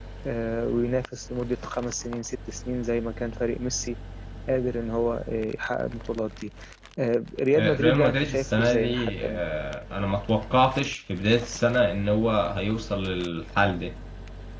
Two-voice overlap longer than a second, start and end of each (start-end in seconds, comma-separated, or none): 7.6-9.4